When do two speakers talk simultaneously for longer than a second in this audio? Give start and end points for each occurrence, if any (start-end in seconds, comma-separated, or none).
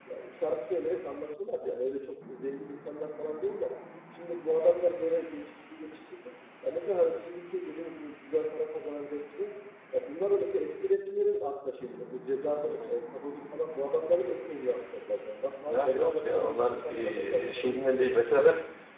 15.7-18.2